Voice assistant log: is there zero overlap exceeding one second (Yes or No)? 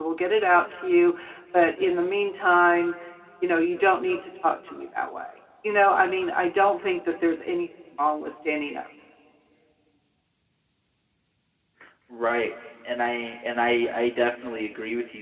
Yes